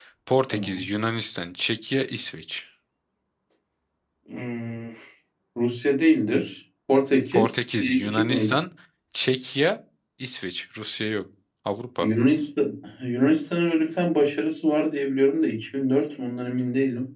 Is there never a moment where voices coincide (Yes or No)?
No